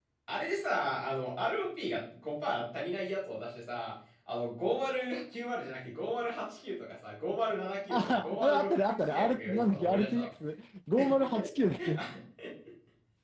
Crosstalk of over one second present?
Yes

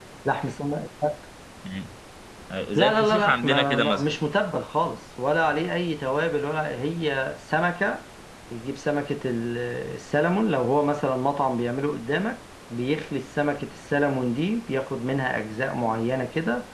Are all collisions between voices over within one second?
No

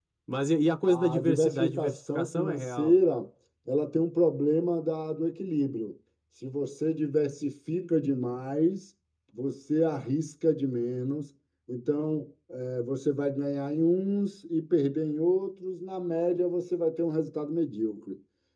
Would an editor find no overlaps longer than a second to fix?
No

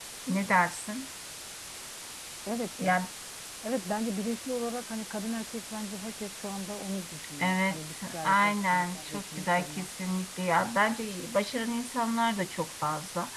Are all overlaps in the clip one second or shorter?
No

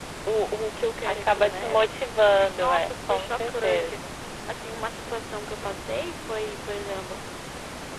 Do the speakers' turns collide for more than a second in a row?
Yes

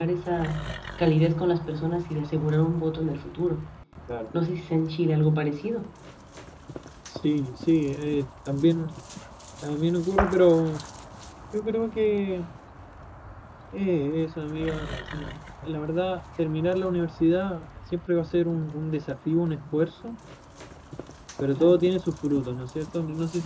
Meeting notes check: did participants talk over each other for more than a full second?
No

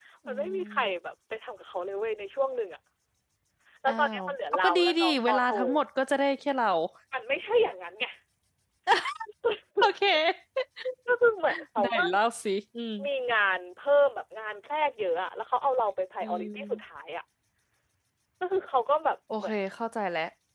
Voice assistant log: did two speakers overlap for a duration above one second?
Yes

